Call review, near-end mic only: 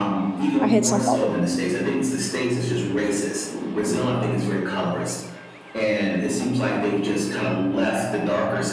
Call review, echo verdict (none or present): present